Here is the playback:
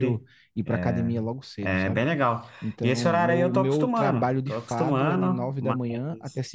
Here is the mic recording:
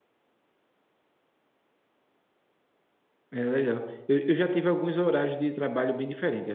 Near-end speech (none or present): present